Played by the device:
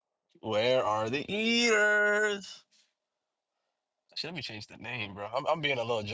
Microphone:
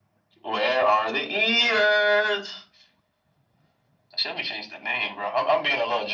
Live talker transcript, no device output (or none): none